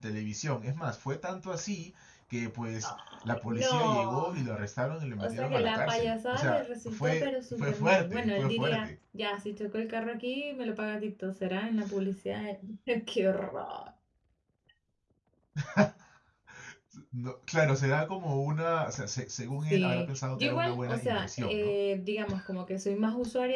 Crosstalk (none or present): present